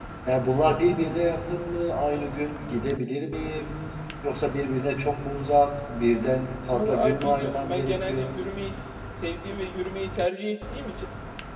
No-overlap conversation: No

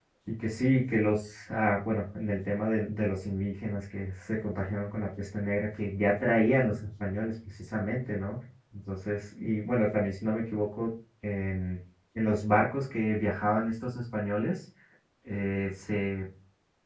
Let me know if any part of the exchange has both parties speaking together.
No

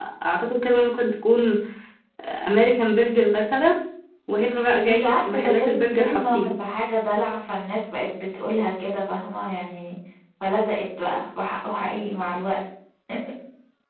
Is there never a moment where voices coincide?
No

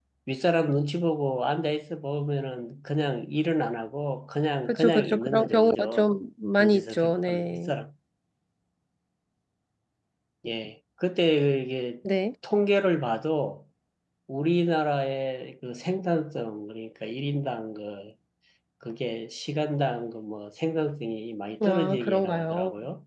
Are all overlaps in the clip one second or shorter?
No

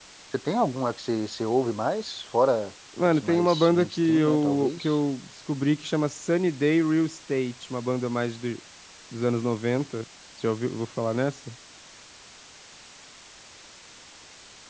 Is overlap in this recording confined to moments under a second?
No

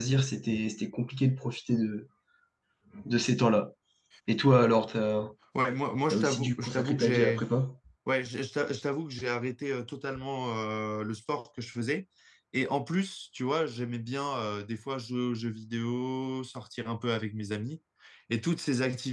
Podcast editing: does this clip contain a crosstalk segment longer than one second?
Yes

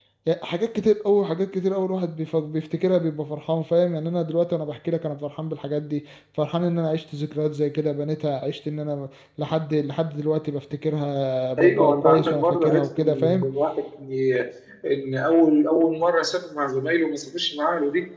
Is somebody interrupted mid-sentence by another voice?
Yes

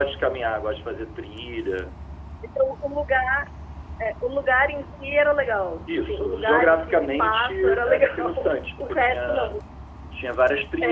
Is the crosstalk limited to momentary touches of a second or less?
No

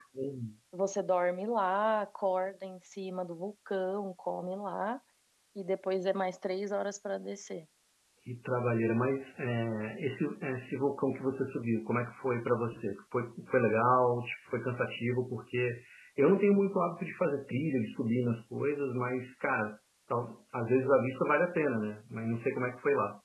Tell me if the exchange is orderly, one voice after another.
Yes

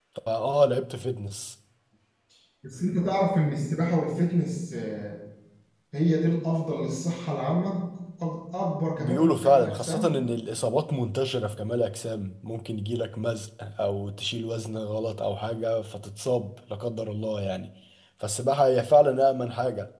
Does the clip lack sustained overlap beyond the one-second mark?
No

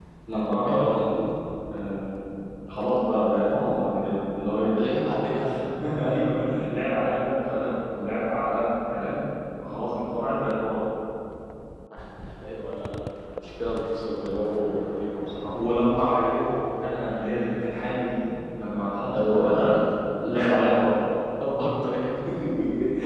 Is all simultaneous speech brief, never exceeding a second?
Yes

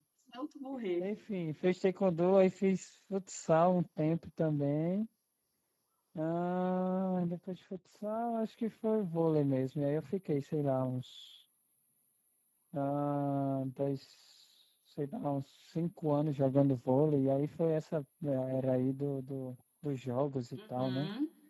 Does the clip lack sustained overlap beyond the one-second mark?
Yes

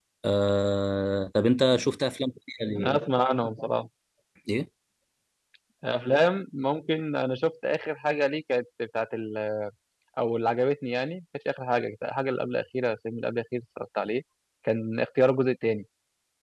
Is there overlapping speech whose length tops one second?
No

